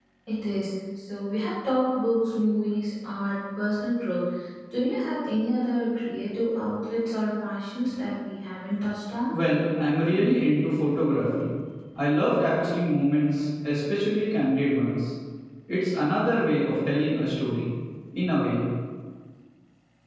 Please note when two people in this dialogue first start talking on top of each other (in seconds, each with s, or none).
none